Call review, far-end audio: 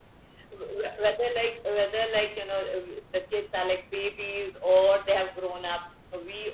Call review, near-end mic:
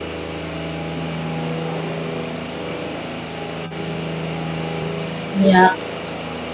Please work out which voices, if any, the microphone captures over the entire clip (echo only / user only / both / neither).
user only